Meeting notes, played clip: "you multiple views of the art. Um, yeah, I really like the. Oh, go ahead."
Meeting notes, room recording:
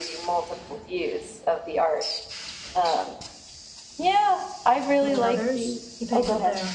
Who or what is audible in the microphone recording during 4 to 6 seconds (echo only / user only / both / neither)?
both